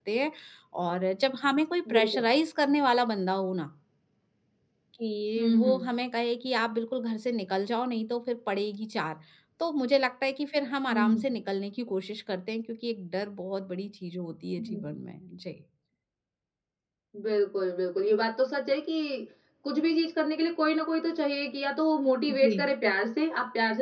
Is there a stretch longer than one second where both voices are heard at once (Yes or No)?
No